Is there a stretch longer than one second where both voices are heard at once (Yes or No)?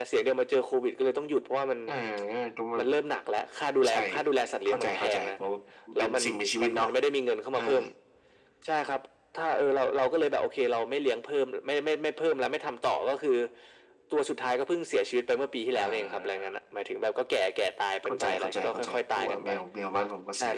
Yes